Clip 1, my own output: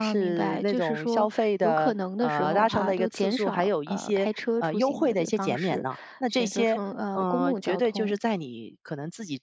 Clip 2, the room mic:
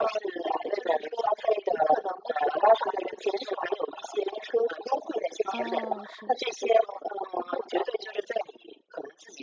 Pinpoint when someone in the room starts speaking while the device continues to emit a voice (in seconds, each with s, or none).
5.5 s